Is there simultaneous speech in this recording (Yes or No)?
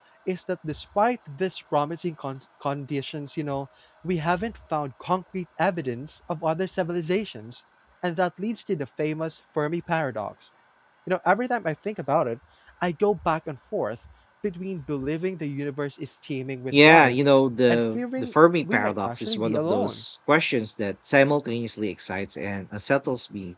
Yes